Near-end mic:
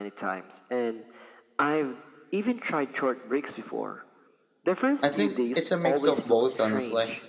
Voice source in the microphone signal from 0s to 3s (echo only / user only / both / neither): echo only